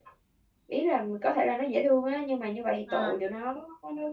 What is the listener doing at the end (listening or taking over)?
listening